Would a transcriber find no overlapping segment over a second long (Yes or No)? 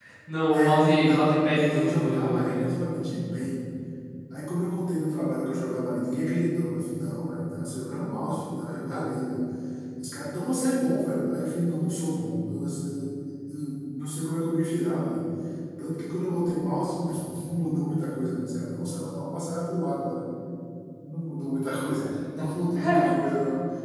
No